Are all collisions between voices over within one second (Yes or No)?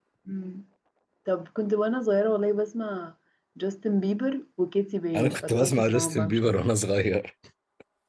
No